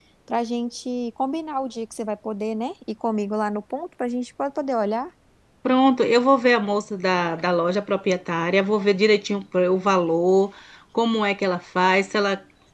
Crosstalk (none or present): none